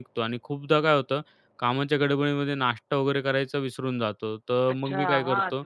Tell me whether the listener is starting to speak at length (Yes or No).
Yes